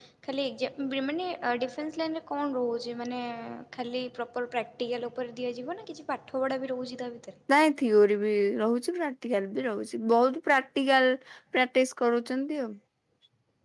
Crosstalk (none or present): none